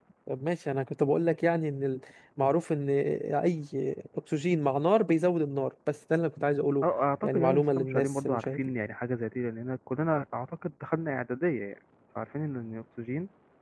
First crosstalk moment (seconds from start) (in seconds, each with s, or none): 7.2 s